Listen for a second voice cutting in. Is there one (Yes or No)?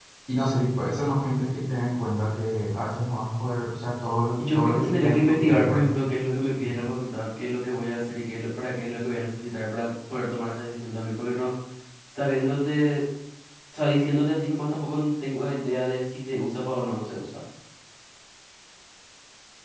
Yes